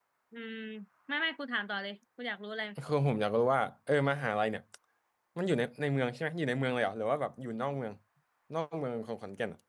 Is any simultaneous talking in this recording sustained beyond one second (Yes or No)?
No